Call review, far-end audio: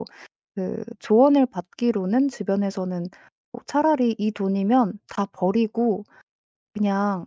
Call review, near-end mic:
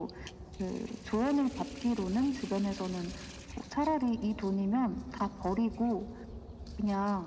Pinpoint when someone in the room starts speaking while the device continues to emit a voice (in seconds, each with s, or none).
none